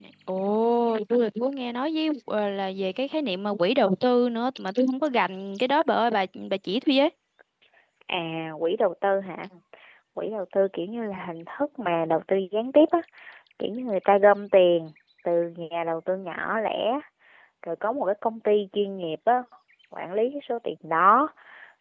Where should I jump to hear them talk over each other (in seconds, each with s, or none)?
none